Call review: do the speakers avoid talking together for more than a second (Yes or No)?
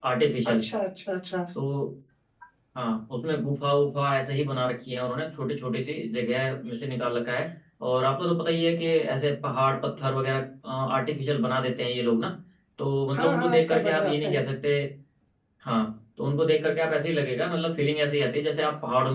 No